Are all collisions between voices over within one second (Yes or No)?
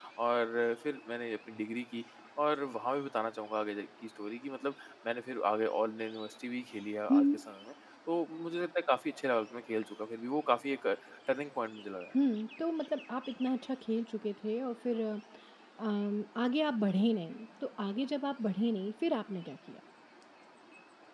Yes